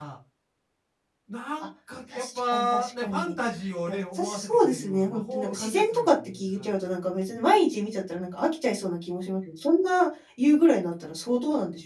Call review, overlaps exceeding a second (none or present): present